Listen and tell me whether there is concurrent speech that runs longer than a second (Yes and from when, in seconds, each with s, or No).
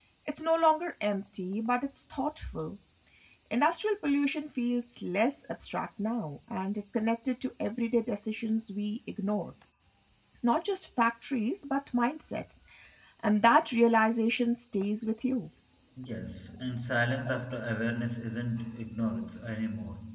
No